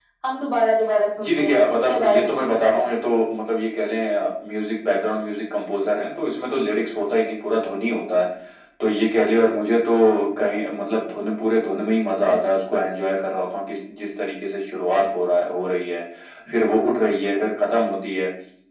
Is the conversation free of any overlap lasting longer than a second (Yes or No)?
No